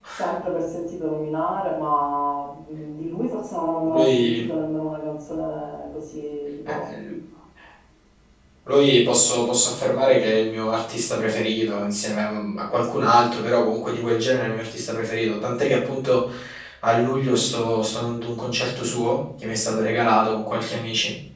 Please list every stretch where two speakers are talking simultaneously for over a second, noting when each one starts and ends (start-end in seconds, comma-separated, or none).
none